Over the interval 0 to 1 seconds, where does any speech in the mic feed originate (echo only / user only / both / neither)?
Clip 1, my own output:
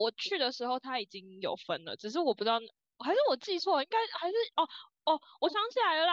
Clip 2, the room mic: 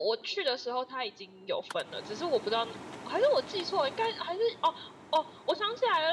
echo only